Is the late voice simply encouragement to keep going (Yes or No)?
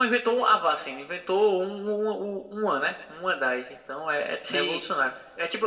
No